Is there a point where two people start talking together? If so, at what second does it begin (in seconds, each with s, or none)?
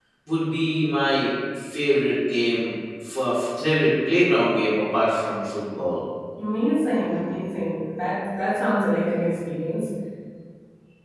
none